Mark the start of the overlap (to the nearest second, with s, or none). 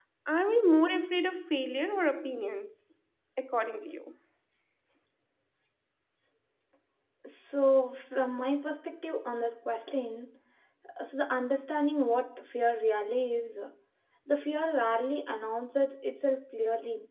none